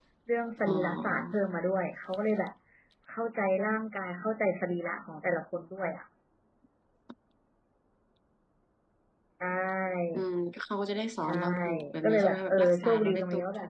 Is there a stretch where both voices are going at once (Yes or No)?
Yes